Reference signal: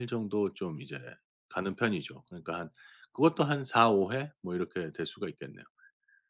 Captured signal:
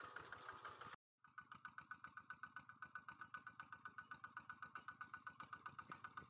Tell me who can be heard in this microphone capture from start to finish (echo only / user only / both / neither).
neither